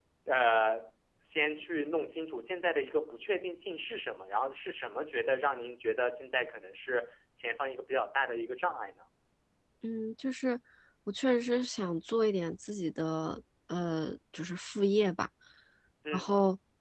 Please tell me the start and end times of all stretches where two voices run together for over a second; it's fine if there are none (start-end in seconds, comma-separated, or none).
none